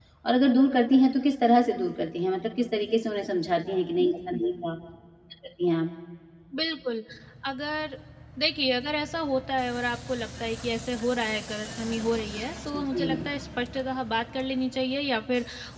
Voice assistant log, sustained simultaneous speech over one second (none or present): none